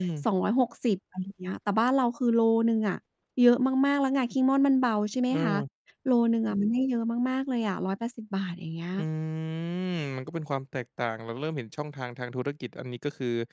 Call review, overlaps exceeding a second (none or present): none